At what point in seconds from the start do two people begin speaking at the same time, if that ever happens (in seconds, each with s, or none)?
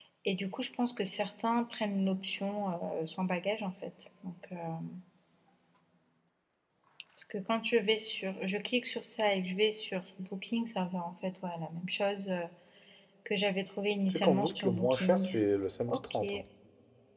14.1 s